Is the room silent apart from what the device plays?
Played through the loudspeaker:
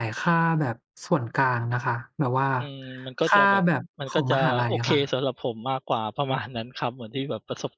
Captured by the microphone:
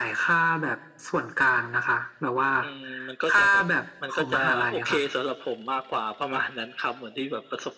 Yes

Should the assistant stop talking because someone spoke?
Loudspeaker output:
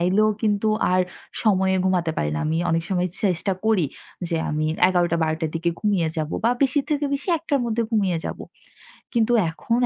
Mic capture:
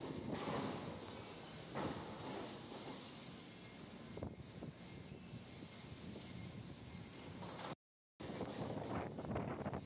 No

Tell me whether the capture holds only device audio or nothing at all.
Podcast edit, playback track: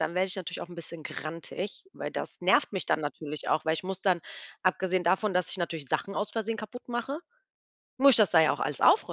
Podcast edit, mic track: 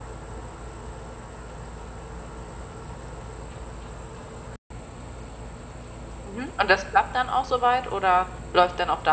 No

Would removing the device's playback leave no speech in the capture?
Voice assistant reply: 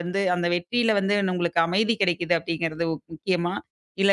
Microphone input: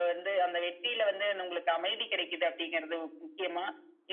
Yes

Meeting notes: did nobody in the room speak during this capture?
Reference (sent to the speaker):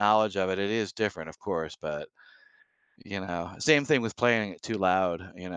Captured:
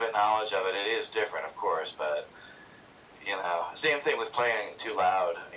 Yes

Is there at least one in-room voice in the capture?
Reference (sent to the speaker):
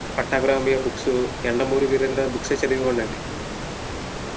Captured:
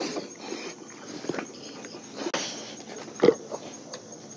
No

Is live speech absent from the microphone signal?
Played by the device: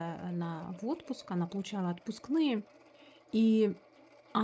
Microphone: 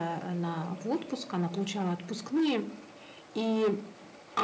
Yes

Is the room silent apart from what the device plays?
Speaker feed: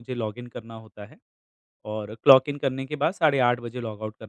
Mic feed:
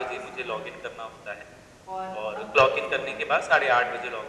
No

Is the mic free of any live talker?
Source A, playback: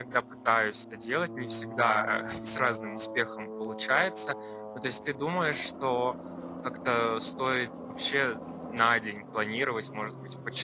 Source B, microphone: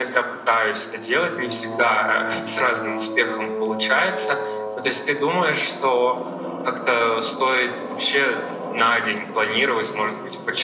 Yes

